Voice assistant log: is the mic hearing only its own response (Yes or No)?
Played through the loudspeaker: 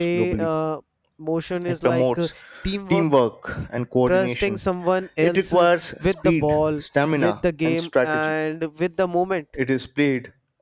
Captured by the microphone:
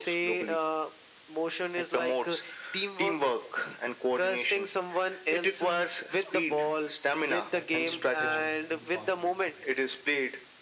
No